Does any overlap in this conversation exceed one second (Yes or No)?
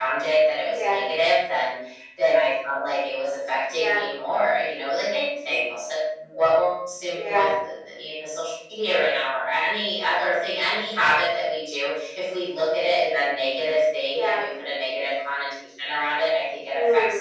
No